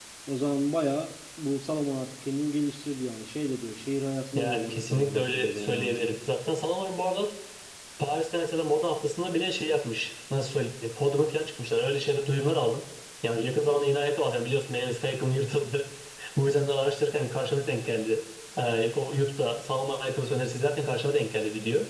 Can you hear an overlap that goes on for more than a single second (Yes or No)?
Yes